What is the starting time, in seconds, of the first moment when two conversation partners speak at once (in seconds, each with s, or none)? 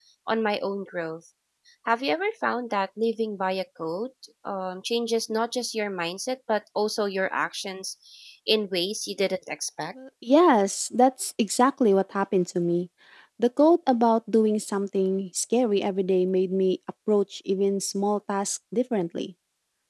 none